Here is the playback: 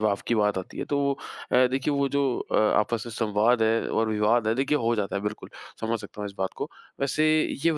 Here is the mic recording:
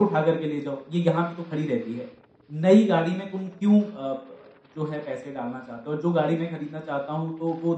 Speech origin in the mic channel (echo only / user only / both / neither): user only